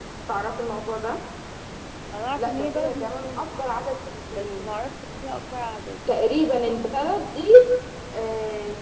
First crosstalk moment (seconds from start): 2 s

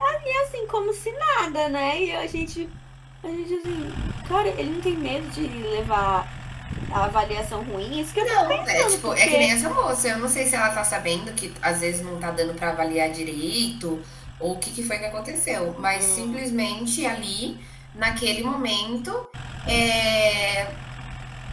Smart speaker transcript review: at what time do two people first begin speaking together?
8 s

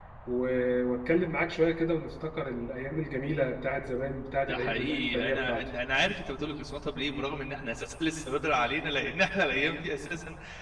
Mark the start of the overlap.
4 s

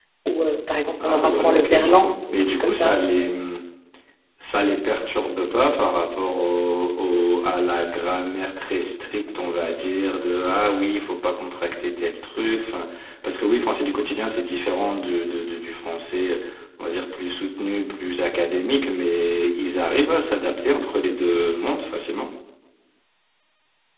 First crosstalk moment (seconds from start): 1 s

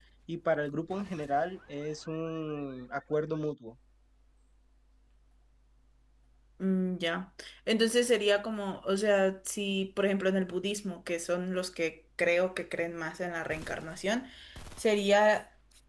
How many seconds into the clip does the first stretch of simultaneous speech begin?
none

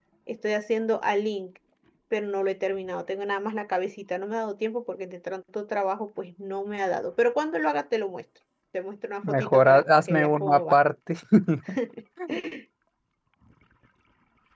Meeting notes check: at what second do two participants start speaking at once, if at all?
9 s

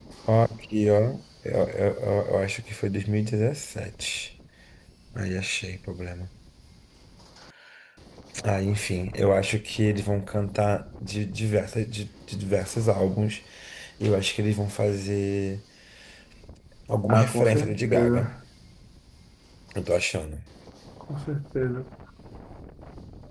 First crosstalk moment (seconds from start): 17 s

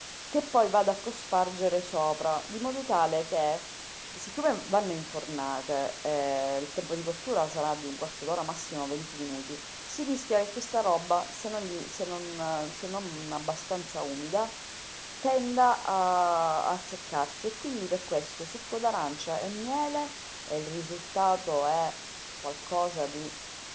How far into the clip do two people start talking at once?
none

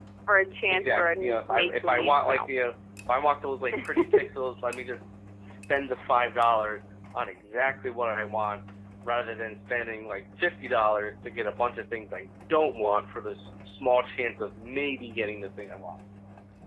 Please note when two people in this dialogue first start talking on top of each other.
1 s

